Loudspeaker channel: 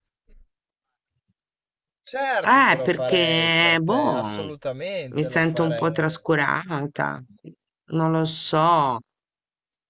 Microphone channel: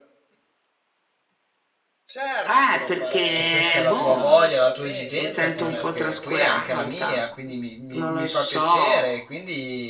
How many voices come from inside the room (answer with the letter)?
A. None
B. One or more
B